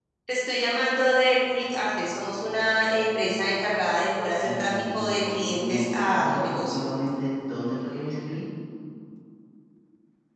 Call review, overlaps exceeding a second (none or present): present